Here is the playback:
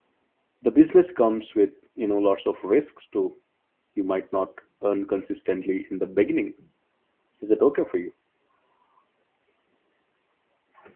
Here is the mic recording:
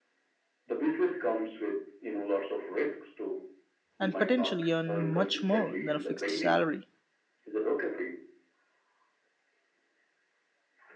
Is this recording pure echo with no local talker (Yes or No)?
No